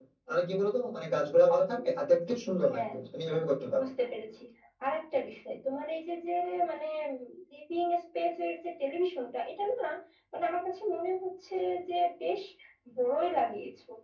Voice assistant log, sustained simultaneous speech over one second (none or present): none